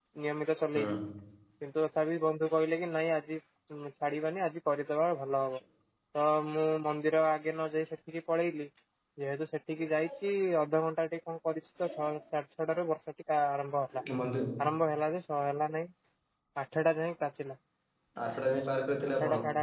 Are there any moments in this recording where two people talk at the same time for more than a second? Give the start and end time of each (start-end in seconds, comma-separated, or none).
none